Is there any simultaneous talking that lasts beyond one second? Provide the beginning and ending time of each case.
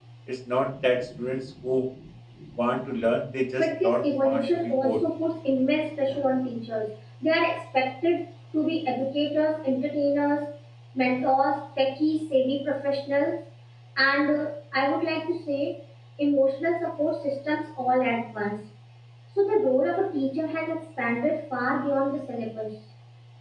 3.6-5.0

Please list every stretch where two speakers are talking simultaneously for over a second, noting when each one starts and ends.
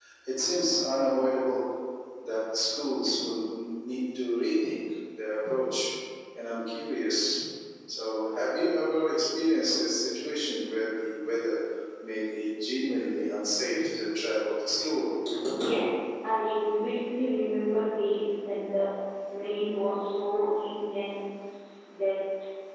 none

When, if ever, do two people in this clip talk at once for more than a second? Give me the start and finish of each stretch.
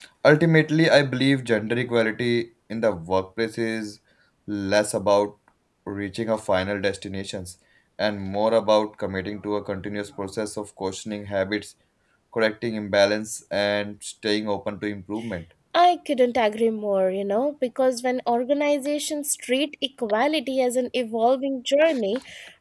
none

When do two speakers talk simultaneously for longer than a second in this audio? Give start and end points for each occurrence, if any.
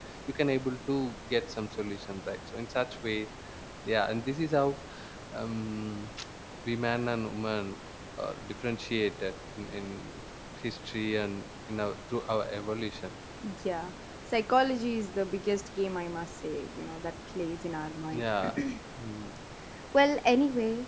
none

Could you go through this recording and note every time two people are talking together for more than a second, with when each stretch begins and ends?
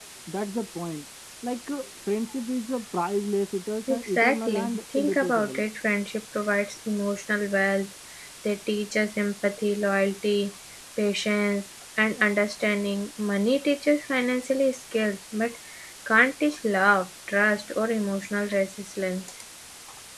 3.9-5.6

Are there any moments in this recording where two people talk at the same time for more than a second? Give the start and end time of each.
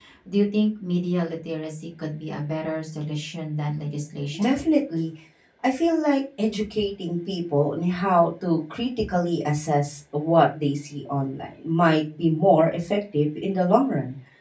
none

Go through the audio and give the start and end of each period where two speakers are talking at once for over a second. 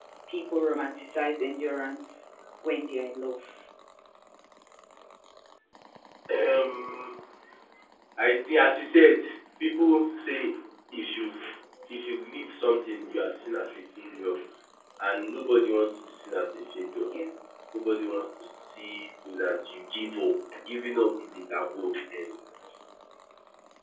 none

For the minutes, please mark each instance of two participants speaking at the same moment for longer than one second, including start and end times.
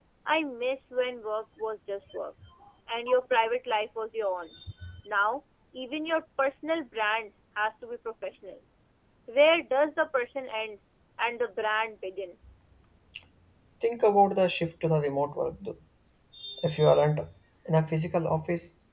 none

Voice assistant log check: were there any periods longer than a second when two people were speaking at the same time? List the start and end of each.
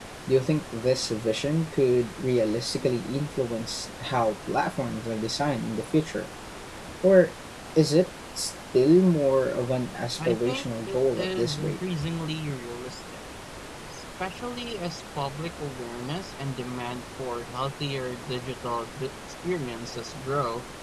10.3-11.8

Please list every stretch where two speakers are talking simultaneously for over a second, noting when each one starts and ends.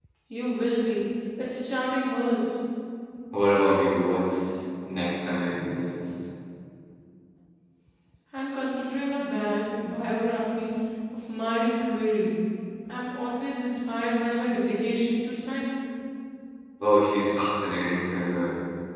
none

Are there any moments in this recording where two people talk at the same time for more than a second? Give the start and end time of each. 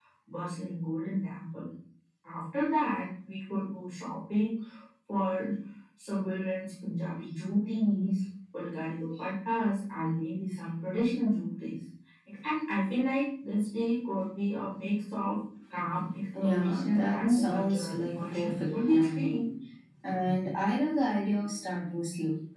16.4-19.5

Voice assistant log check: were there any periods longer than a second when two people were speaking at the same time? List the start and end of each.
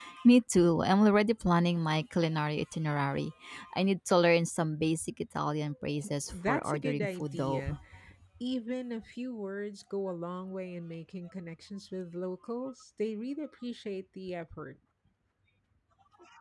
6.3-7.6

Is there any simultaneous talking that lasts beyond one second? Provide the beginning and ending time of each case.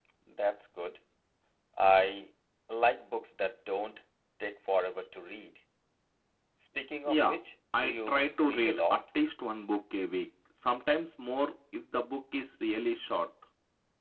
7.7-9.0

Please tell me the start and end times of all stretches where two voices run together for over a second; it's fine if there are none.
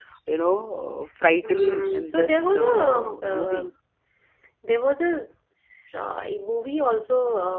1.4-3.7

